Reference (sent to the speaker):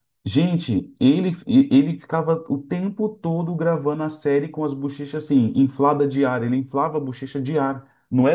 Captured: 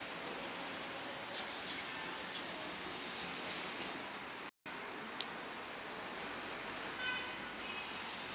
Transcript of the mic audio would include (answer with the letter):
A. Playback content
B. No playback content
B